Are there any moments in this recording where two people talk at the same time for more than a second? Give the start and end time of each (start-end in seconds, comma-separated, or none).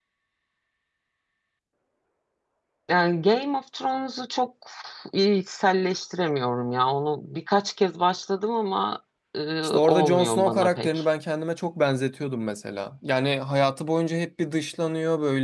9.6-11.0